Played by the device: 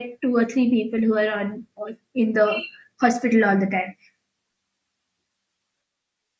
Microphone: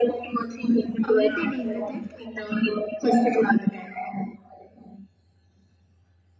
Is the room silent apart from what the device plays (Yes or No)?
No